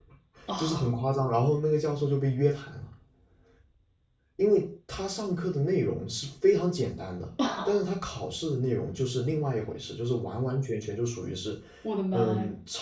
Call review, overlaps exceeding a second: none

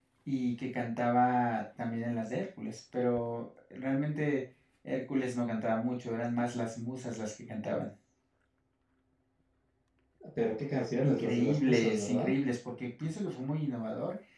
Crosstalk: present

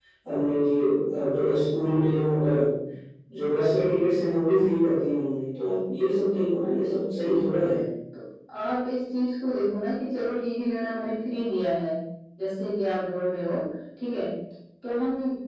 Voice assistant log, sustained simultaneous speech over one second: none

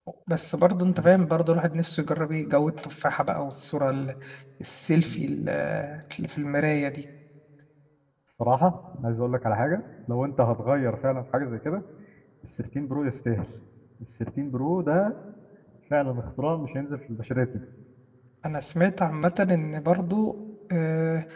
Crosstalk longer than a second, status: none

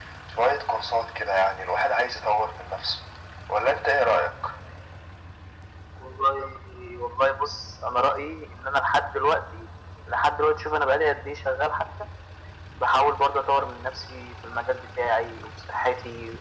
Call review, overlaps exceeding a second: none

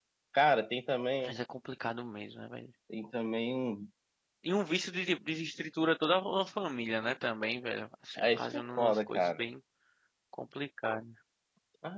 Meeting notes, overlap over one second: present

